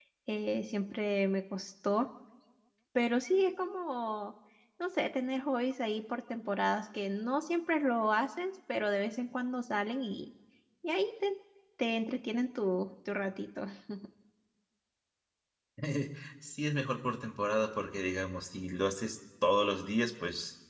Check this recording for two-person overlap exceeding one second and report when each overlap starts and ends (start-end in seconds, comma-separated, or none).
none